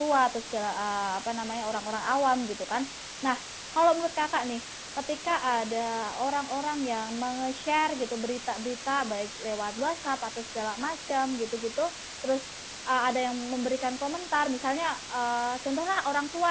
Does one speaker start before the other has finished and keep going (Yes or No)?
No